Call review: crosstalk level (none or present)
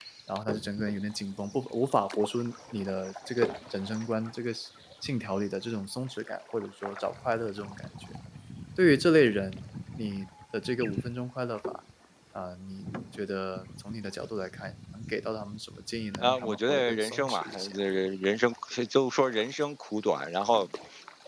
present